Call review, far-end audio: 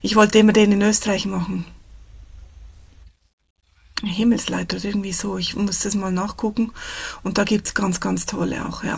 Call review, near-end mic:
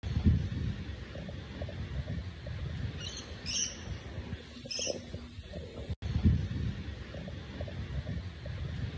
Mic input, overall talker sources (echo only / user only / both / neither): neither